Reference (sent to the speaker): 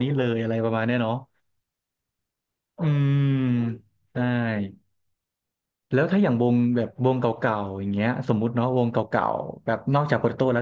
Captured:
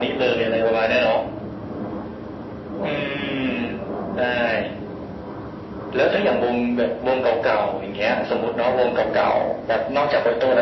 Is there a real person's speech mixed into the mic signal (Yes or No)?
No